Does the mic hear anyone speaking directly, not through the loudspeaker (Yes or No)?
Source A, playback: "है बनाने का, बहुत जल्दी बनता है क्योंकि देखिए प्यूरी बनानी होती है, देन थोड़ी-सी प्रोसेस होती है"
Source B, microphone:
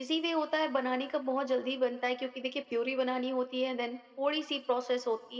No